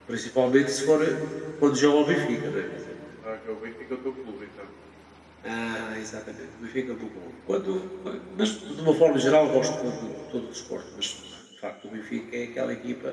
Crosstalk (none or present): none